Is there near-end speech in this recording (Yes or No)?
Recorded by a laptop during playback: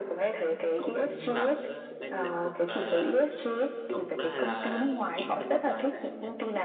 Yes